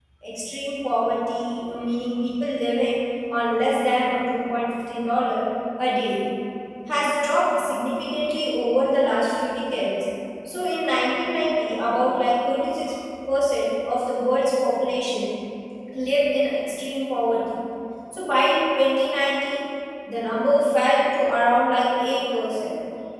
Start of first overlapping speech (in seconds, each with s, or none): none